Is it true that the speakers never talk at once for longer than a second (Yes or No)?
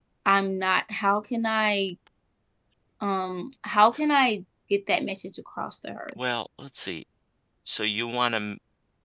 Yes